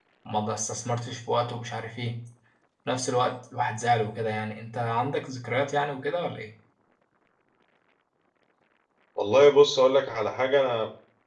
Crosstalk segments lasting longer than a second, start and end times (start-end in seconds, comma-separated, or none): none